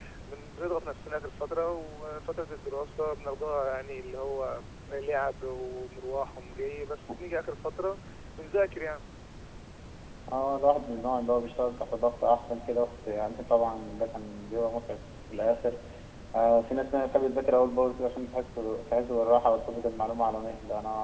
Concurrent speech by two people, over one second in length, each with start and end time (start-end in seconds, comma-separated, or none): none